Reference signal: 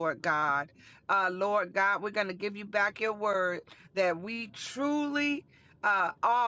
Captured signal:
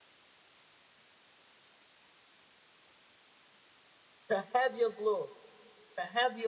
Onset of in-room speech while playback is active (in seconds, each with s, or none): 4.3 s